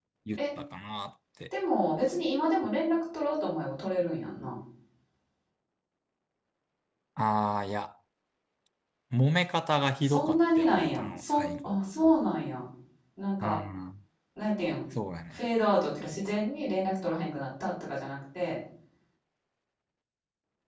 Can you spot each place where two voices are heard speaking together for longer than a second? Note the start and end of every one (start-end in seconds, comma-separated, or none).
10.0-11.8